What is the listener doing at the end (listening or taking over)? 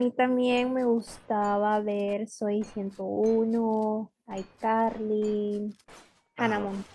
taking over